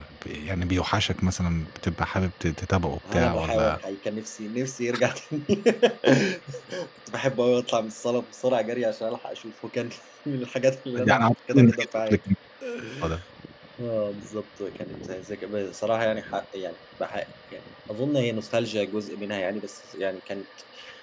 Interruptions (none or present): present